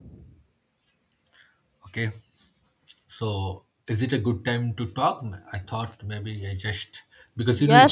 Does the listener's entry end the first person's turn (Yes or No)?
Yes